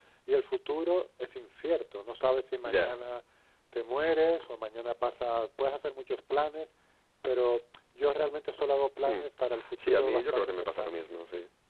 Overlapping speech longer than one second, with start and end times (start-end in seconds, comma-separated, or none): 9.8-11.0